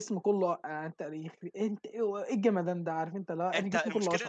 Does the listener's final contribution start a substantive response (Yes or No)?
Yes